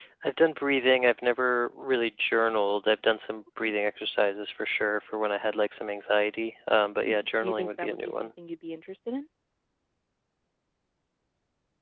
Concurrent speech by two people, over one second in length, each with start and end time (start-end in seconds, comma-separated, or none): 7.0-8.3